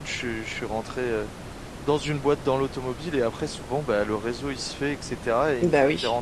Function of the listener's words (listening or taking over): listening